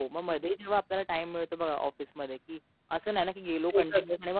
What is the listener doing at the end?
listening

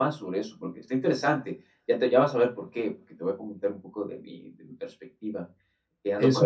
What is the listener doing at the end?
taking over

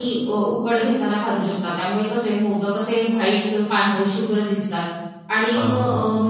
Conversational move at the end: listening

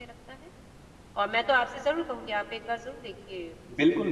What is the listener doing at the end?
taking over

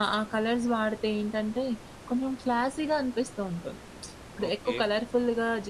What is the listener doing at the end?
listening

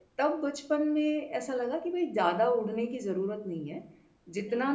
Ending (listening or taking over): listening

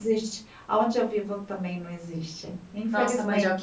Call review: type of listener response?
taking over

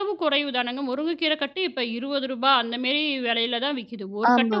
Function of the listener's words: listening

